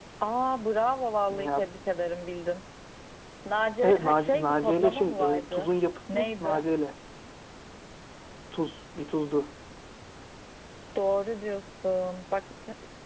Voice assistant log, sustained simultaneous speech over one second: present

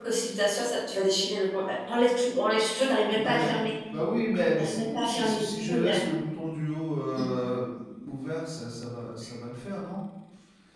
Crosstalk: present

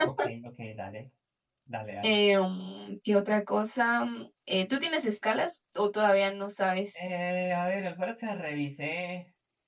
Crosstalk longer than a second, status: none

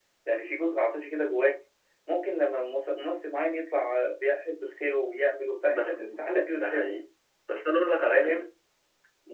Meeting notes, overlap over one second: present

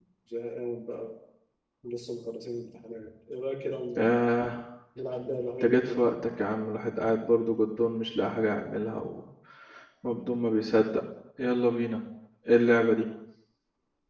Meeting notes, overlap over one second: none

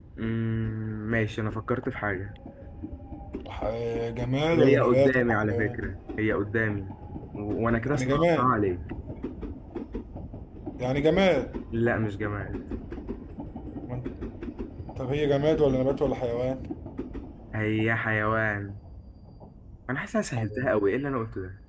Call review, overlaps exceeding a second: present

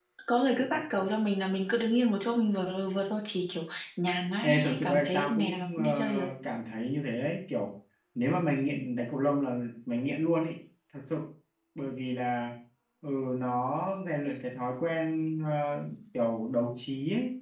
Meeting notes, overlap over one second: present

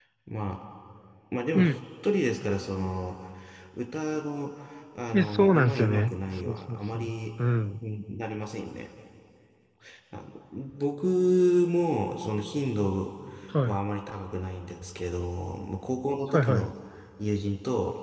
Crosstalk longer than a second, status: present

